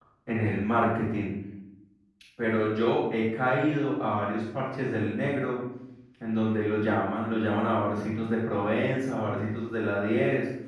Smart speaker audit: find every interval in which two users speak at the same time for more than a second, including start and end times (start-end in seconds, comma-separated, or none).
none